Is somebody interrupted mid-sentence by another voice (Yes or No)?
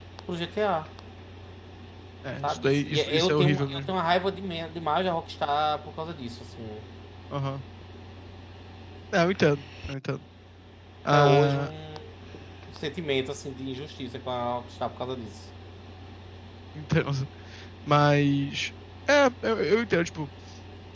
Yes